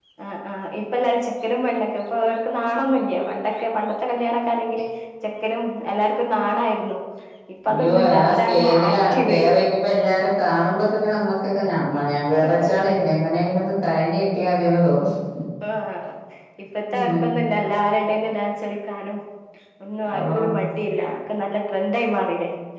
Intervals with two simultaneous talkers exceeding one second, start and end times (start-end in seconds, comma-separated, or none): 7.7-9.4